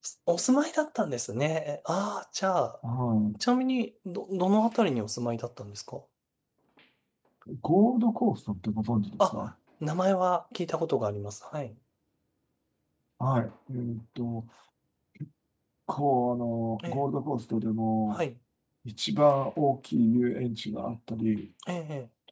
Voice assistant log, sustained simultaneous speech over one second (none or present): none